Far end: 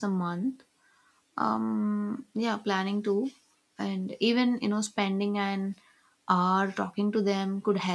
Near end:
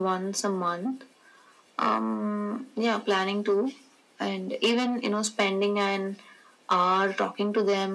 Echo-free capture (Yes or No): No